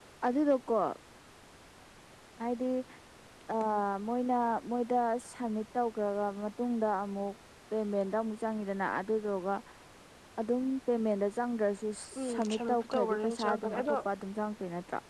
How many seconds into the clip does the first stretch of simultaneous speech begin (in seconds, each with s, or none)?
12.3 s